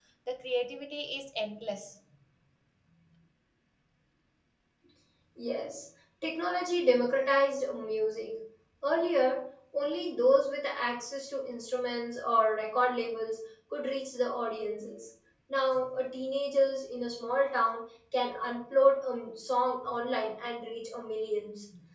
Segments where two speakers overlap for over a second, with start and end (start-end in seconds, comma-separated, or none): none